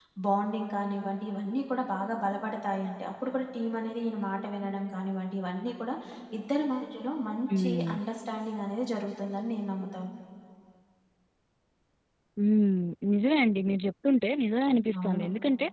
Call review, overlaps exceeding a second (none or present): none